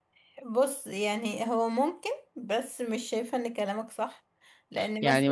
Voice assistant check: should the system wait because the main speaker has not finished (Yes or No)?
No